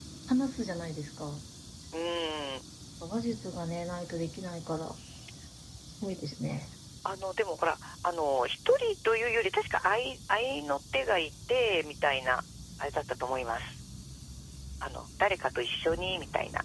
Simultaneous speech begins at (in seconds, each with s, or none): none